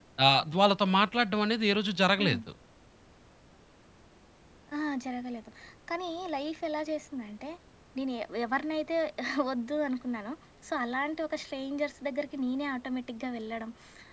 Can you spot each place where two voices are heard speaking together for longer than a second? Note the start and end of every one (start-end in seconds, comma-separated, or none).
none